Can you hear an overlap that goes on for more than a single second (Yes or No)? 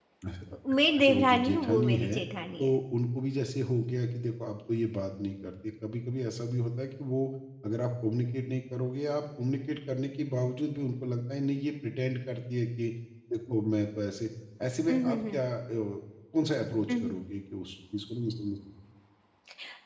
Yes